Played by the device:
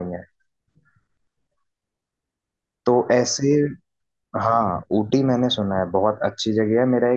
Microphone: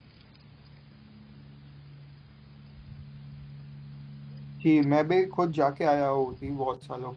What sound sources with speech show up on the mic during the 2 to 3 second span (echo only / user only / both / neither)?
neither